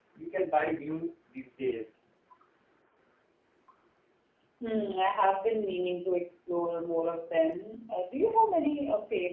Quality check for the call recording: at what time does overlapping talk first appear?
none

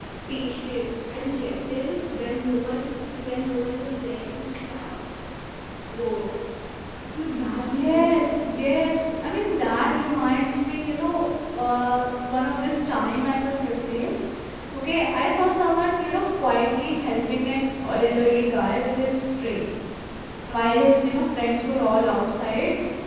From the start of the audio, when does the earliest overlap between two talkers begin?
7.2 s

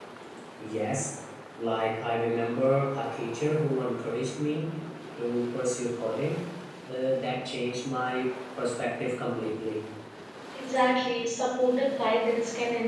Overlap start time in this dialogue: none

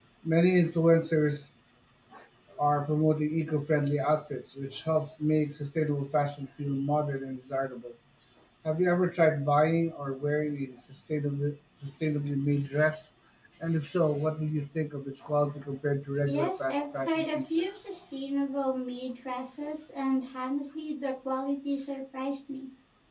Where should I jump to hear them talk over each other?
16.3 s

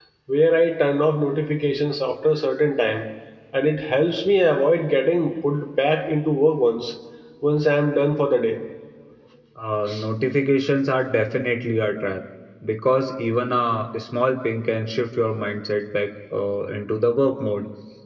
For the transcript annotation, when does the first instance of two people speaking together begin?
none

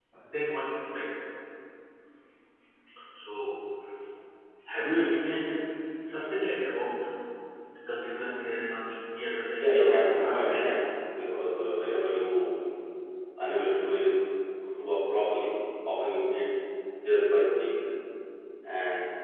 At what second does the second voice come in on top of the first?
9.5 s

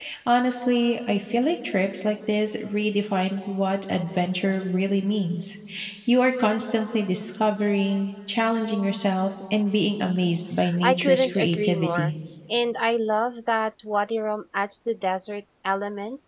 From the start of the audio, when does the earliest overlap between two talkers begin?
10.6 s

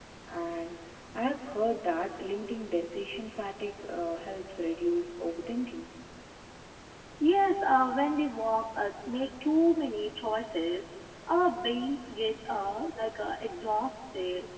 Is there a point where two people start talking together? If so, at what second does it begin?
none

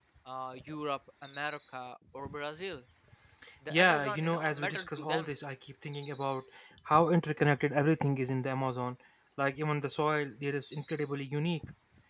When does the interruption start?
3.7 s

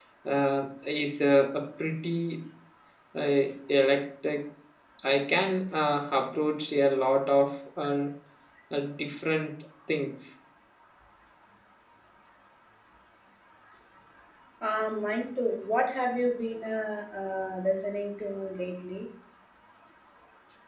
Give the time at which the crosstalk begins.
none

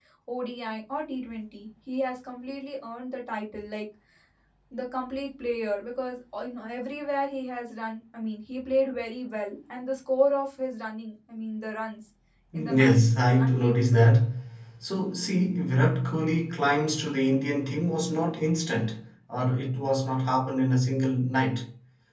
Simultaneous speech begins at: 12.5 s

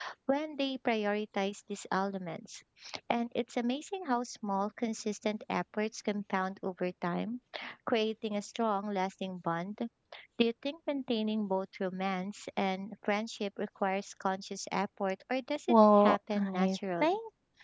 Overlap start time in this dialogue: 15.7 s

